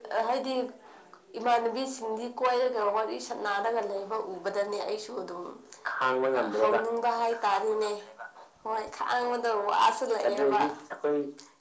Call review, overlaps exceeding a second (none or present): none